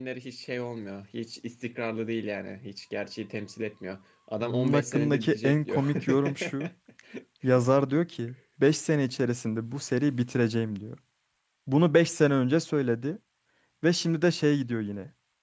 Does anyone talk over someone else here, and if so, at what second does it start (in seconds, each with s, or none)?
4.4 s